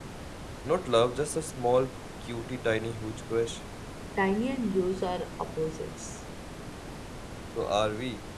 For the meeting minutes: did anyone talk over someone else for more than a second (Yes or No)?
No